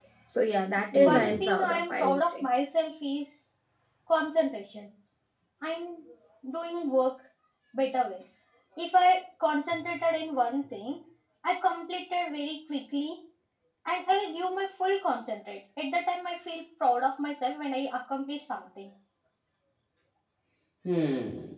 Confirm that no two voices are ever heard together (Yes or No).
No